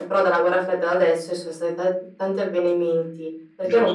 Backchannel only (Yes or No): Yes